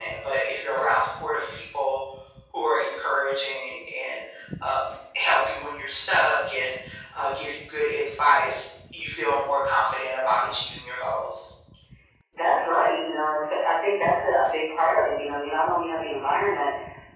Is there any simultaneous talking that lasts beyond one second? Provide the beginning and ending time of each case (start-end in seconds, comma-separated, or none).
none